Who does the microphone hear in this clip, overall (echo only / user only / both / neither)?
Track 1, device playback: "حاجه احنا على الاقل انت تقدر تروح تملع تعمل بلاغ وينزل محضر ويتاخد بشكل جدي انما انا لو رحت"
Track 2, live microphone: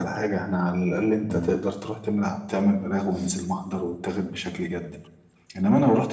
both